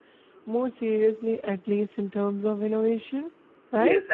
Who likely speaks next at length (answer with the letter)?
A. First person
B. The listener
B